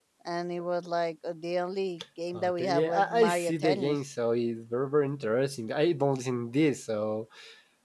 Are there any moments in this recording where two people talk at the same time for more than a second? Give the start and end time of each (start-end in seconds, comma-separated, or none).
2.3-4.0